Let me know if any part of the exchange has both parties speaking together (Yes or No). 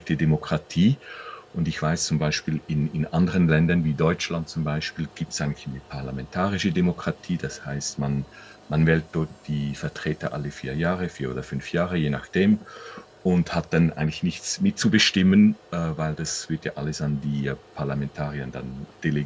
No